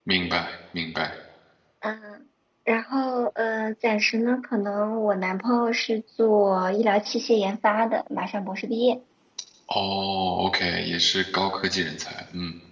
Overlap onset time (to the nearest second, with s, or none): none